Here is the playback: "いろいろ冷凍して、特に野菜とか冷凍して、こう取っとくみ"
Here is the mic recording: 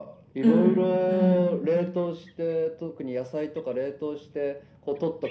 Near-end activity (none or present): present